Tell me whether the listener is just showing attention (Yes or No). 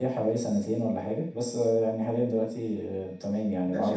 No